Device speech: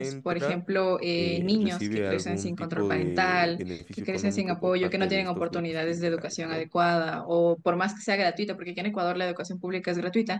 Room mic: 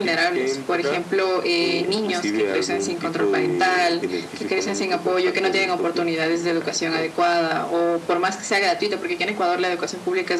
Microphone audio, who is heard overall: echo only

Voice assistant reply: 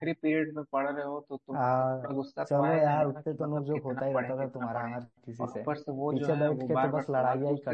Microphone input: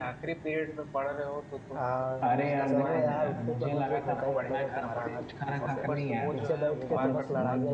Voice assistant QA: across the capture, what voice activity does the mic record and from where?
both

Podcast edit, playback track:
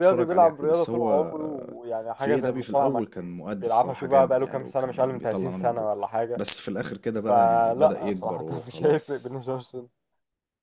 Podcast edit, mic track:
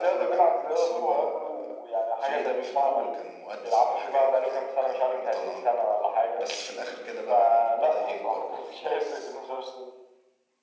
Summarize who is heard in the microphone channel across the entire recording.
echo only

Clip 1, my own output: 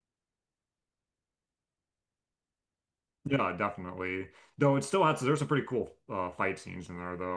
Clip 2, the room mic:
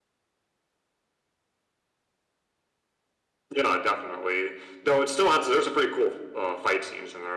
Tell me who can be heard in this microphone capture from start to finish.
echo only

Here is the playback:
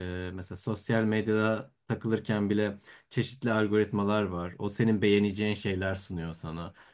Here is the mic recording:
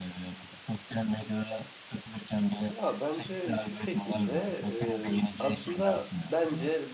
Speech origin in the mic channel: both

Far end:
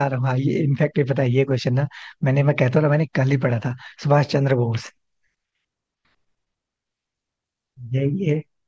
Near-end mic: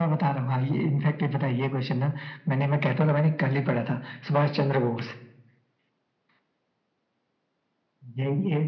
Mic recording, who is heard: echo only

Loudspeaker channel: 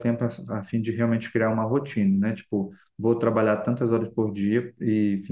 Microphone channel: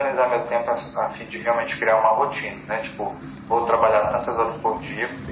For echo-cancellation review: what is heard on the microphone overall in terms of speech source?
echo only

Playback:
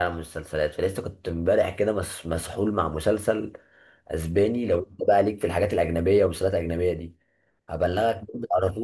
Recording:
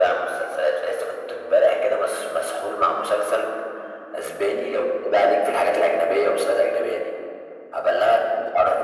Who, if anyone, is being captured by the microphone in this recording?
echo only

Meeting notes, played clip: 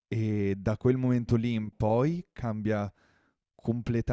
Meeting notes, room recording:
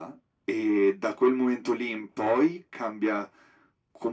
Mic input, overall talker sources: echo only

